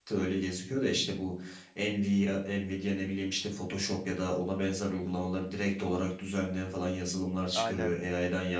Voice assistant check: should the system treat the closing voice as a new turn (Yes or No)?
No